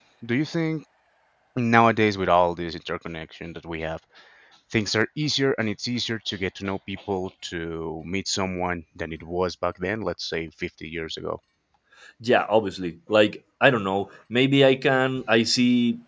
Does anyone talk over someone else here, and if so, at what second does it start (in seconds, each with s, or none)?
none